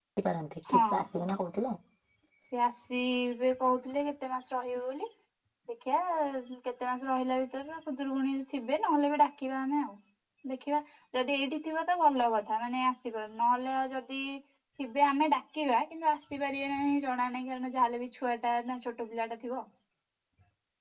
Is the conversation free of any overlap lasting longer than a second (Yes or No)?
Yes